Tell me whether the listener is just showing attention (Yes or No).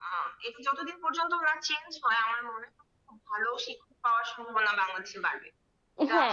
No